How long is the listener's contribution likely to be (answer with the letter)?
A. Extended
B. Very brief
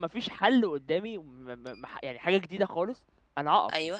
B